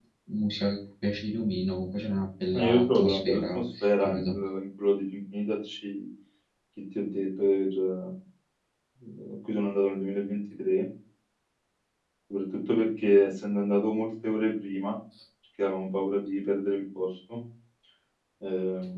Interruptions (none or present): present